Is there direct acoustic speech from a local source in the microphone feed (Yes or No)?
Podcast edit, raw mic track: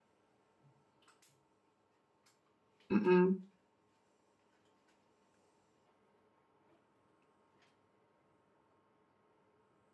Yes